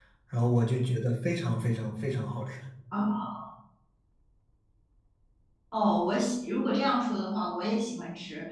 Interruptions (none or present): none